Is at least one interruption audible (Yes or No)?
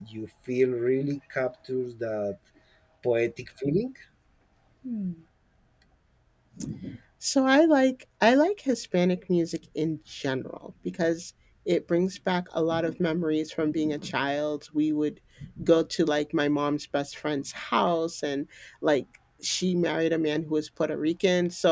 No